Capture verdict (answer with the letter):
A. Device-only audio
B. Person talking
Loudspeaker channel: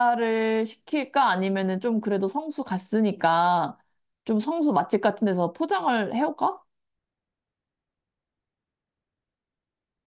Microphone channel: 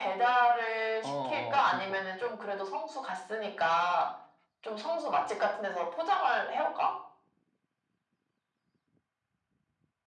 B